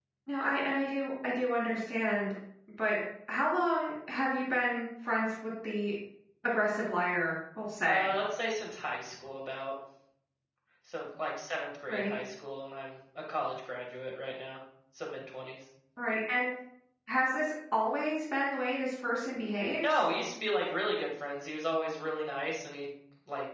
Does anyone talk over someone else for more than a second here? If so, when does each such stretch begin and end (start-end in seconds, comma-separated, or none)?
none